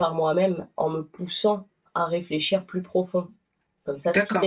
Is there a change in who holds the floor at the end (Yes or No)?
No